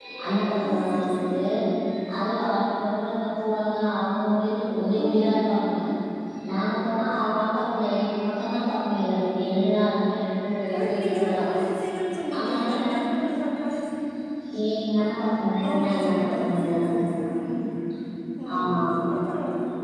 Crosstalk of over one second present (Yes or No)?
Yes